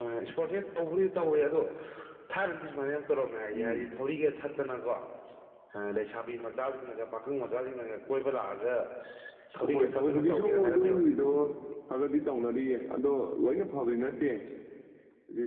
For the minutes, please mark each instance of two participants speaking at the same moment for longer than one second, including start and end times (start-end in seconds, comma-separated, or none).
9.7-11.0